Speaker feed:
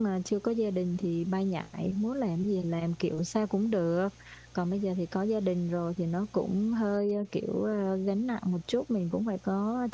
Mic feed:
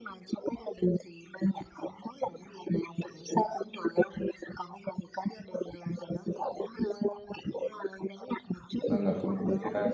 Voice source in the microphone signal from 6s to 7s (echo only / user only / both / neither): echo only